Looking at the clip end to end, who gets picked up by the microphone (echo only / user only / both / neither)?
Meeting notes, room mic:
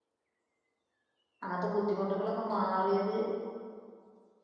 user only